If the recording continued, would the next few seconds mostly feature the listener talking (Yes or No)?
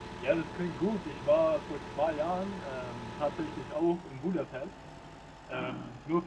No